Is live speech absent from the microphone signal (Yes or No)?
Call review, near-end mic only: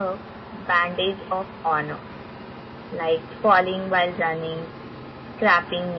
Yes